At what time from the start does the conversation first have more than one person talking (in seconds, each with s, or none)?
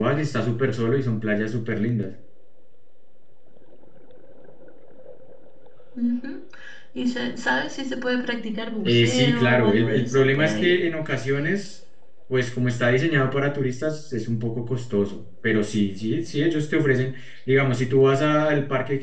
8.8 s